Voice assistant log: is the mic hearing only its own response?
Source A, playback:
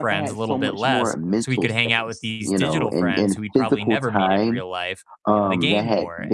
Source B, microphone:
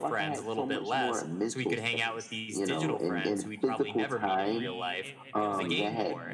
No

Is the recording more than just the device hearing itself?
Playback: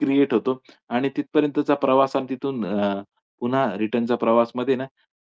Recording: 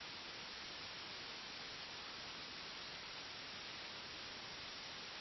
No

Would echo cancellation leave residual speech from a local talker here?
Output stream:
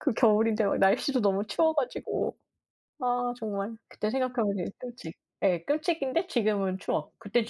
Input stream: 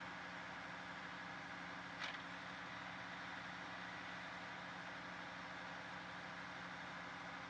No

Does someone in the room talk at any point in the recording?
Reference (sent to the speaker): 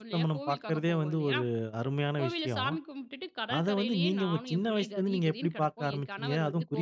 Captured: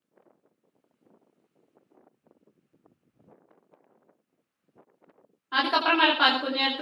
Yes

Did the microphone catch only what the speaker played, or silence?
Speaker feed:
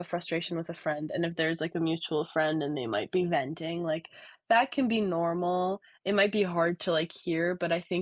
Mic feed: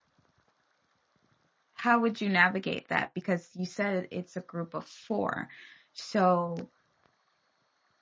No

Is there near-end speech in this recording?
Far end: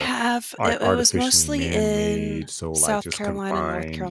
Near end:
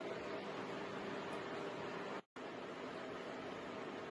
No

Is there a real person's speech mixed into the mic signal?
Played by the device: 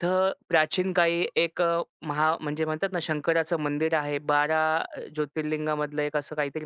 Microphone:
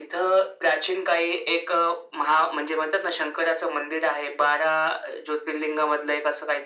No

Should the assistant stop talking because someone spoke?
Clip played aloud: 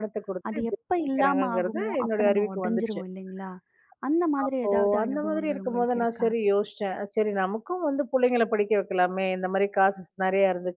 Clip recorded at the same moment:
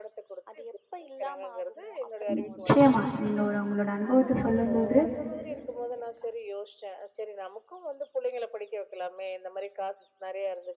Yes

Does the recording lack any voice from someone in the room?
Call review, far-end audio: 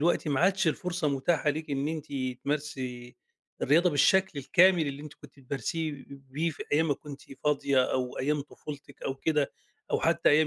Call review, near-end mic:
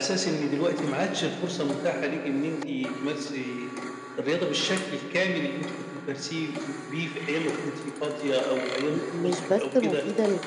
No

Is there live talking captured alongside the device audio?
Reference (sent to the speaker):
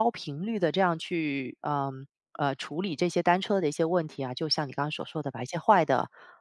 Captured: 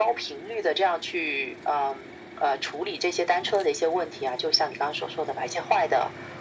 No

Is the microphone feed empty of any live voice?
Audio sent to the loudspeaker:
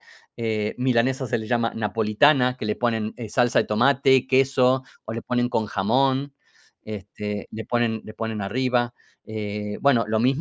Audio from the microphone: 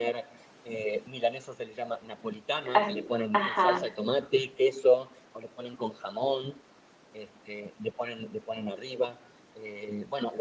No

